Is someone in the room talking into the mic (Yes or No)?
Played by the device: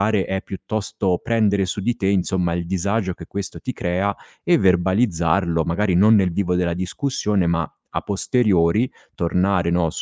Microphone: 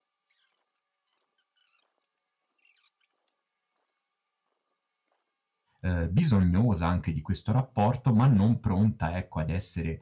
Yes